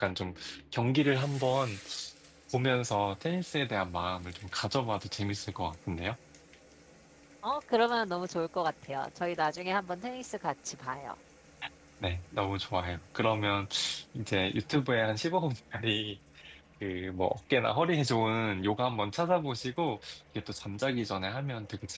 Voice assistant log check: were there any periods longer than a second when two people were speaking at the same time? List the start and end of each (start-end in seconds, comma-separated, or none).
none